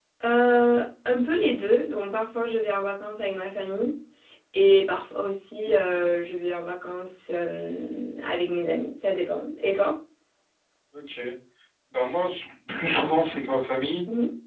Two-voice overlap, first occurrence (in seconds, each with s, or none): none